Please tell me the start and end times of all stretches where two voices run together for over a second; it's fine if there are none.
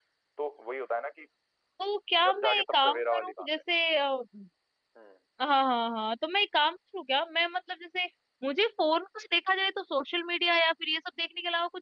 2.2-3.5

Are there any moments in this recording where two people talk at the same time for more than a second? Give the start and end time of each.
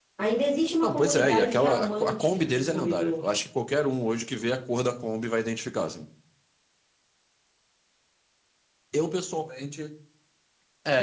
0.8-3.1

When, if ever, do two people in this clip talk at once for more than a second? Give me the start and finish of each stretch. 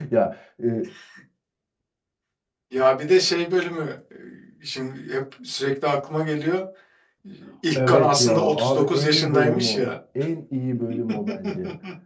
7.9-9.8

